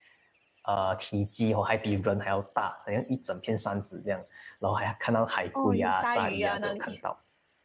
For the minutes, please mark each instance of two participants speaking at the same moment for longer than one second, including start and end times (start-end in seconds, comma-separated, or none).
5.5-7.0